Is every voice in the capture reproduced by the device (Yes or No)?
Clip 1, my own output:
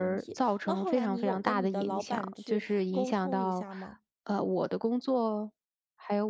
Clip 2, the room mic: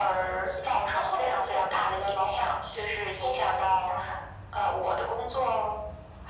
Yes